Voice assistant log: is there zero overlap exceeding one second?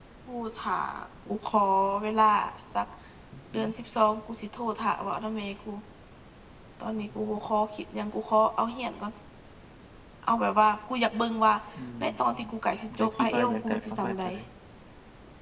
No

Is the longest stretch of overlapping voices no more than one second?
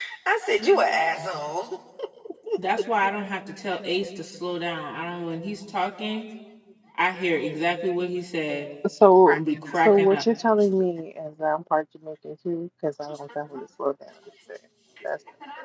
Yes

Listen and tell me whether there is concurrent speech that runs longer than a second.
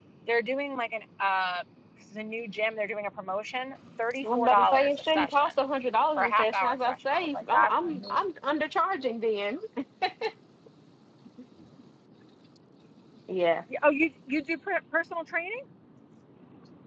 Yes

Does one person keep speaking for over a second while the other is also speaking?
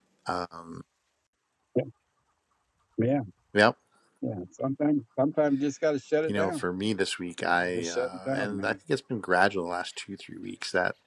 Yes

